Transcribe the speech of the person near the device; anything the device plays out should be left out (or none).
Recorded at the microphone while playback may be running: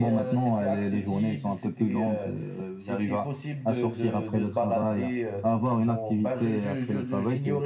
none